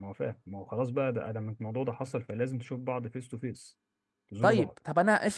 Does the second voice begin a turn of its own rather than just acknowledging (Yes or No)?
Yes